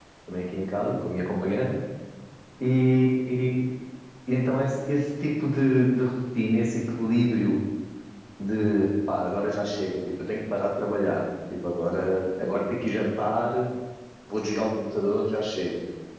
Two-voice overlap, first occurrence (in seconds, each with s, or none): none